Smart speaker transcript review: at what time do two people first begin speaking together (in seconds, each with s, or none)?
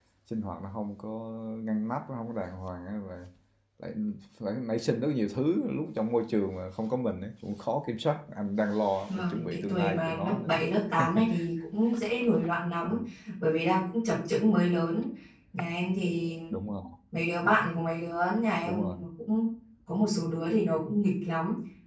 9.1 s